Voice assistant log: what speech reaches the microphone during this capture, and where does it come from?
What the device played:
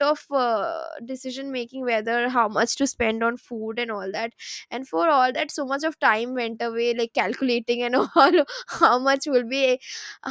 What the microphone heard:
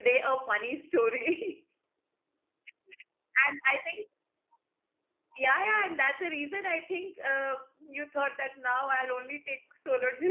user only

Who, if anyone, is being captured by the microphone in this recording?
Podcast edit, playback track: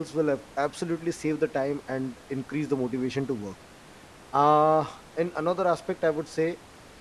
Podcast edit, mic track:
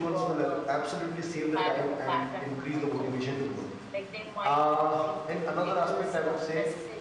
both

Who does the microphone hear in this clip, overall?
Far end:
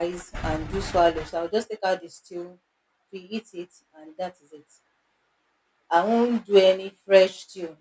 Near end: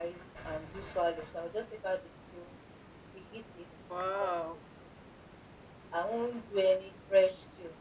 both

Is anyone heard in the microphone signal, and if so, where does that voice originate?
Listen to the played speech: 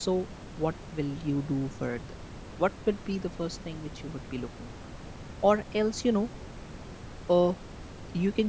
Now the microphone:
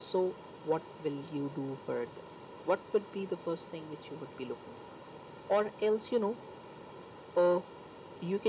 echo only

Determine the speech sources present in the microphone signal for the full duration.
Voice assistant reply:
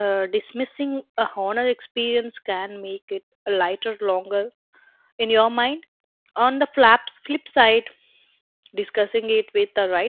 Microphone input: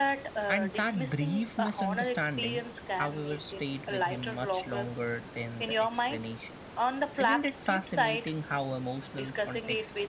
both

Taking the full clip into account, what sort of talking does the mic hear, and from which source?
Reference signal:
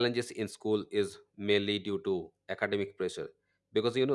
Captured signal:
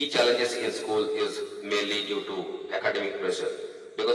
echo only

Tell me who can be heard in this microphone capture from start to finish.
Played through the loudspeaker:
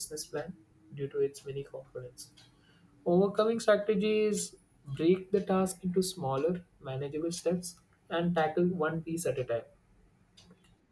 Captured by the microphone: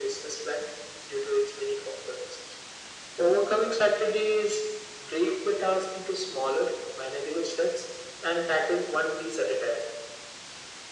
echo only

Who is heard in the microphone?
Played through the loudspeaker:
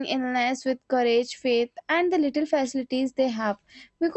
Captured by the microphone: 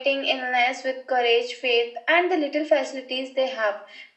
echo only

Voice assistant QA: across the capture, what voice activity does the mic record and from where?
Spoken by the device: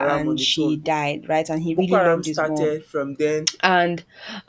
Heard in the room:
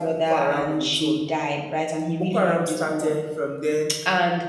echo only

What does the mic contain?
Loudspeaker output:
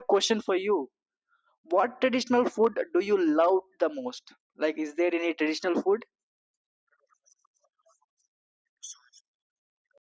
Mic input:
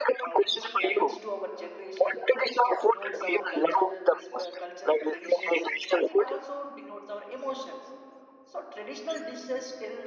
both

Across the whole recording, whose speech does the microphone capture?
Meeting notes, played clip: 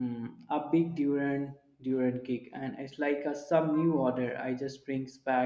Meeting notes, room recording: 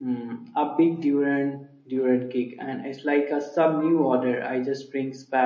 echo only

